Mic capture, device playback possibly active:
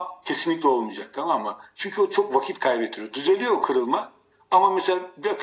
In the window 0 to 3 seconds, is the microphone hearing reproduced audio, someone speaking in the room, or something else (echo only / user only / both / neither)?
echo only